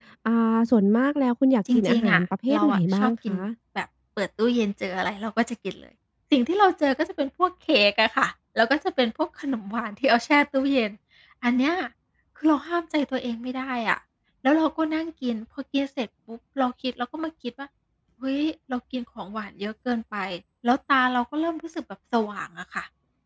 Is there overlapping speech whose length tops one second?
Yes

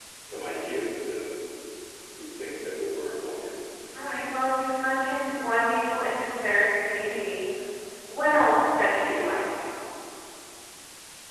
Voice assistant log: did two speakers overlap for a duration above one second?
No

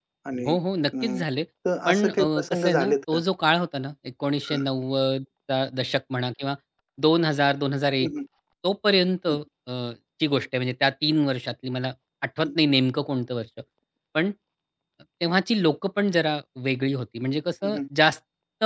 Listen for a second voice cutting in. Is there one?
Yes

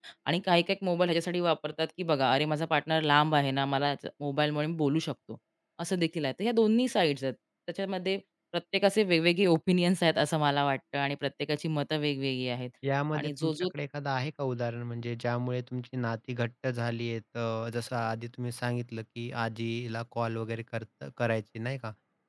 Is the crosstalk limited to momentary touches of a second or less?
Yes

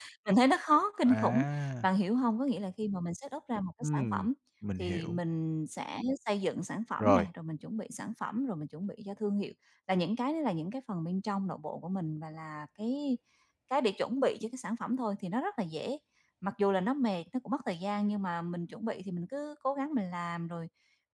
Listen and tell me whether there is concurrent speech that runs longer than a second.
No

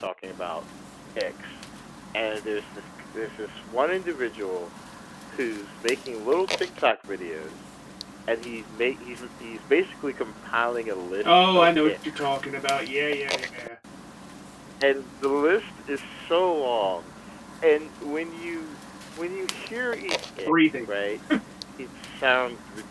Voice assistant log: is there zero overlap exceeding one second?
No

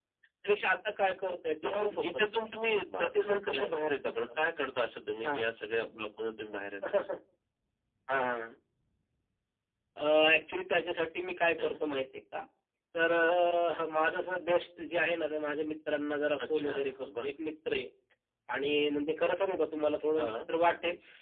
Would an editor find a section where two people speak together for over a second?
Yes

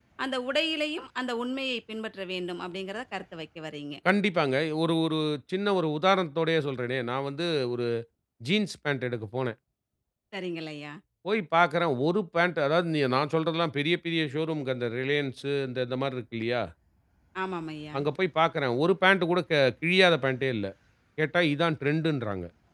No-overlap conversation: Yes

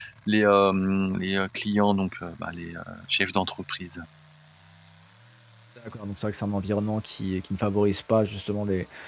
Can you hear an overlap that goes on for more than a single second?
No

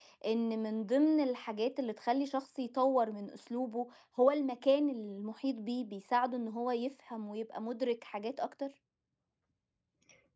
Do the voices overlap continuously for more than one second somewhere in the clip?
No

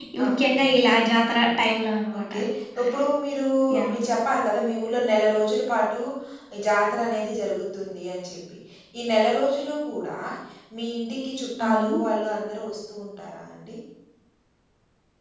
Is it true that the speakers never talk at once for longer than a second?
Yes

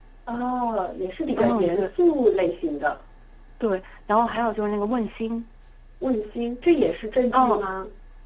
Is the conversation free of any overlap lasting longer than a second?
Yes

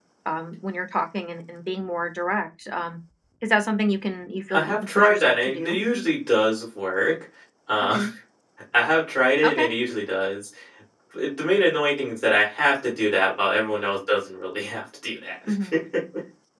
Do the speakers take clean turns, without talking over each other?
No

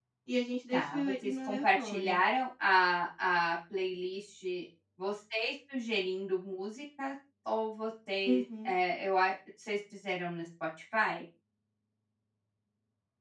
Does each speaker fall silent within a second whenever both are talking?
No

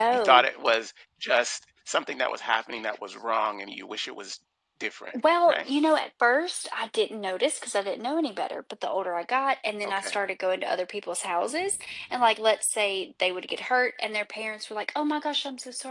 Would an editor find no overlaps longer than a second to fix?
Yes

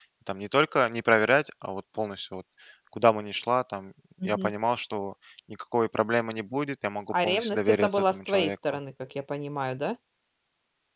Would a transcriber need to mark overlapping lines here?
Yes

